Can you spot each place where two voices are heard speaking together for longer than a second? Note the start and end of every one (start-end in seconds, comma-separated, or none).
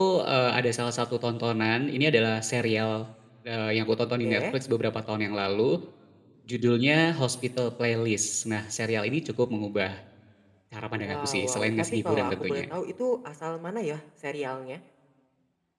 11.1-12.6